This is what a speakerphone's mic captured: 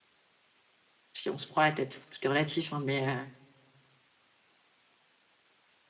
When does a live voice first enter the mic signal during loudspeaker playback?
1.1 s

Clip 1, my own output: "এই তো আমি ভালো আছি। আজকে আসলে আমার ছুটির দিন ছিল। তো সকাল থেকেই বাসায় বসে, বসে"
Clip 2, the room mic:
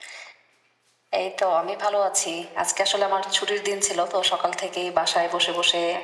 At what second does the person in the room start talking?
none

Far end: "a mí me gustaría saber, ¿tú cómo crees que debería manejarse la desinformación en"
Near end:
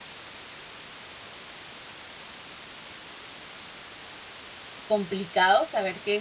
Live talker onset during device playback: 4.8 s

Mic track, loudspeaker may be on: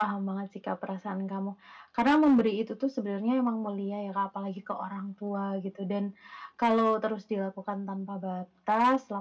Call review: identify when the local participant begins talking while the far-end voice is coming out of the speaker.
none

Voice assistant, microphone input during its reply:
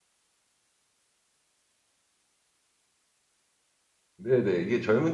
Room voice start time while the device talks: 4.2 s

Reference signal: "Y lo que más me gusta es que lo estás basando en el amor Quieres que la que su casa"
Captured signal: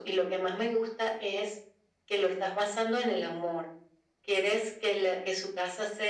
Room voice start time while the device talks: none

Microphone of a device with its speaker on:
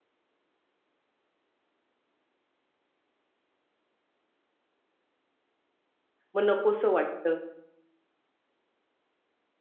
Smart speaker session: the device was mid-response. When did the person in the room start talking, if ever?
6.3 s

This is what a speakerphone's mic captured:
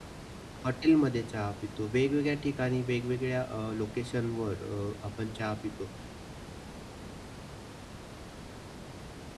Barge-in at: 0.6 s

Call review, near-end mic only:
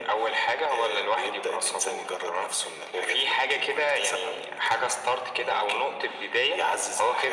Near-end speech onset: none

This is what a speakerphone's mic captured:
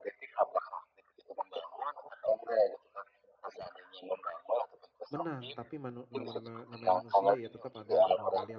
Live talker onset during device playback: 5.1 s

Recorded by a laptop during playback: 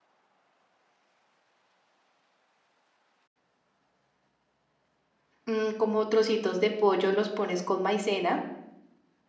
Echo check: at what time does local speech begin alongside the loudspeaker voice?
5.4 s

